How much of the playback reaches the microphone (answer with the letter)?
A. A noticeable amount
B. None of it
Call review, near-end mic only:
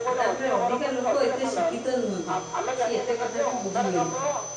A